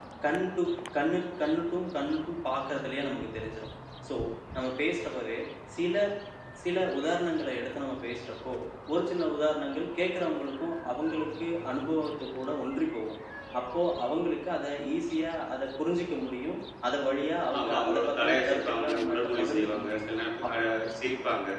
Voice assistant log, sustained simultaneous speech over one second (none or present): present